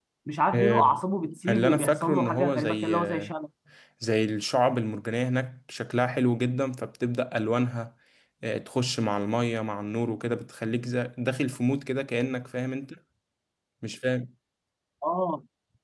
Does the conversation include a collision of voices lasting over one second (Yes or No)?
Yes